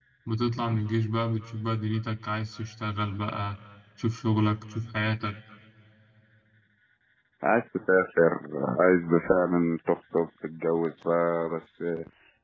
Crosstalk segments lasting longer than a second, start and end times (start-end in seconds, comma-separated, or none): none